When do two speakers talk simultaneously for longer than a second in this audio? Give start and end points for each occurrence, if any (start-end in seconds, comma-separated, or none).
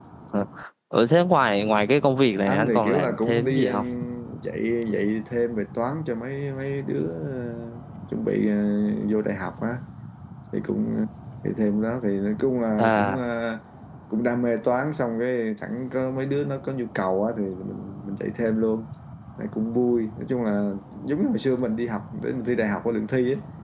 2.4-3.6